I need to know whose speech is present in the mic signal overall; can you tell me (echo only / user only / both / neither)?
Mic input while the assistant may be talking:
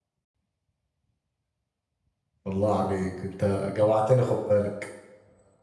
user only